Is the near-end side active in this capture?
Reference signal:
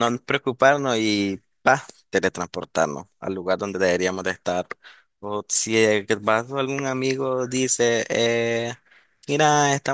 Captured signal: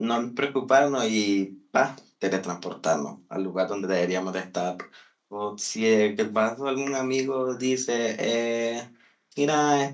No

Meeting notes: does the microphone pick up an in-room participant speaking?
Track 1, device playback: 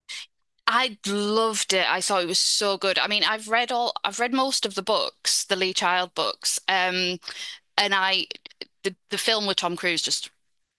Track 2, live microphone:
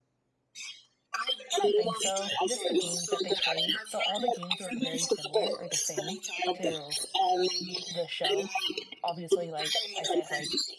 Yes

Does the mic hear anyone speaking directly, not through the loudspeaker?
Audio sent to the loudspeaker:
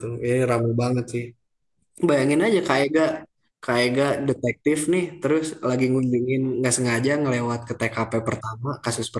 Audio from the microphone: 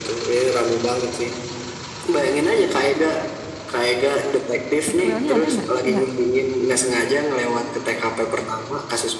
Yes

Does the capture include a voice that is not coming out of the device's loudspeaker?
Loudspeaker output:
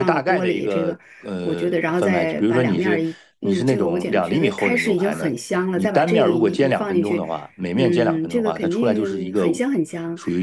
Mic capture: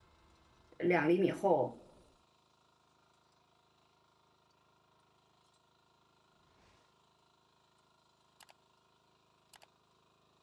Yes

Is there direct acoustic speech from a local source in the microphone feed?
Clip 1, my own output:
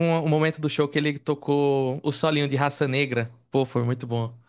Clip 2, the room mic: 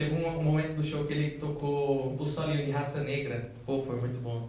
No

